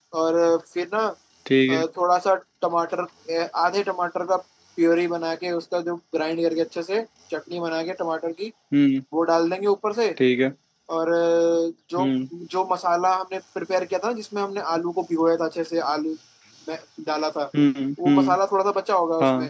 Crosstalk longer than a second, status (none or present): none